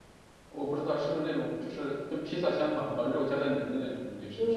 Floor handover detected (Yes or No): Yes